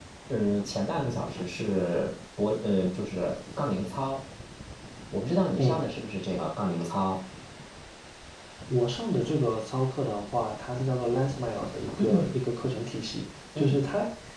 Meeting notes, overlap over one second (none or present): none